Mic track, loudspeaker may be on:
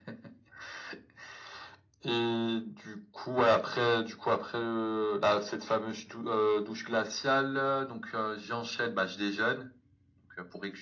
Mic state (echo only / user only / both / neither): echo only